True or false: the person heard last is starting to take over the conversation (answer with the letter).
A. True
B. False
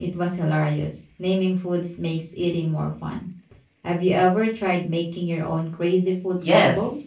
A